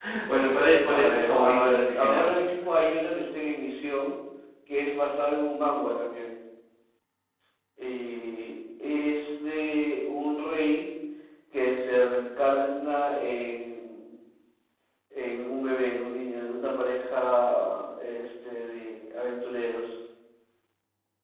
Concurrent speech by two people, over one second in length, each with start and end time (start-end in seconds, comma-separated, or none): 0.9-2.3